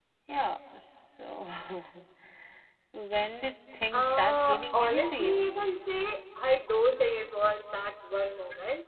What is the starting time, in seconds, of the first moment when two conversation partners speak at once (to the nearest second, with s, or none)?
4 s